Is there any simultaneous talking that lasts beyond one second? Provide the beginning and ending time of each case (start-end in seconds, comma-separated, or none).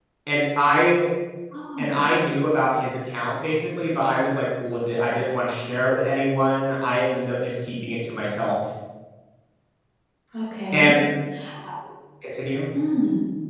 none